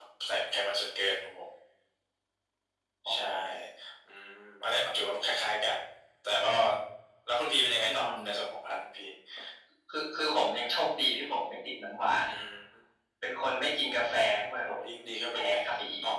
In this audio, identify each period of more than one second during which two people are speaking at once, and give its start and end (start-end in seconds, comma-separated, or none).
none